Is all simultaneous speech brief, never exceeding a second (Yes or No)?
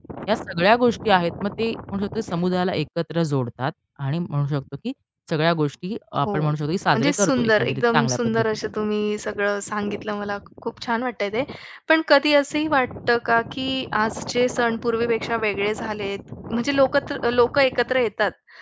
No